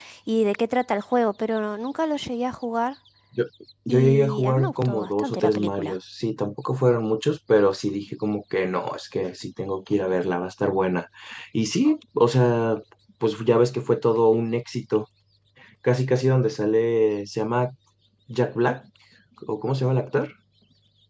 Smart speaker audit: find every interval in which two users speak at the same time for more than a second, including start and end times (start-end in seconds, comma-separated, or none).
3.9-6.0